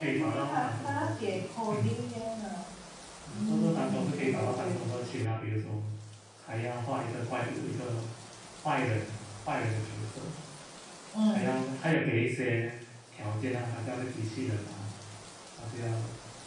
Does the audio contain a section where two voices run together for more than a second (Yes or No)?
Yes